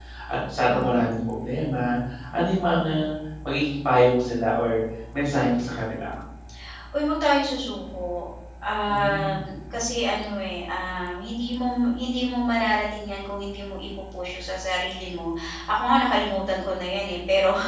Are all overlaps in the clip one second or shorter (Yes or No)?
Yes